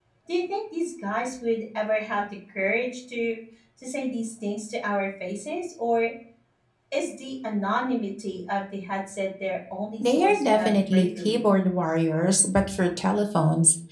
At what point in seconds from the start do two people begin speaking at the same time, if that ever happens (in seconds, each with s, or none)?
10.0 s